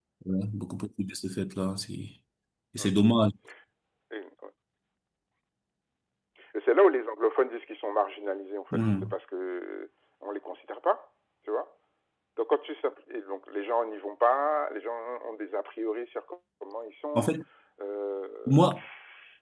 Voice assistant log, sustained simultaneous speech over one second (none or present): none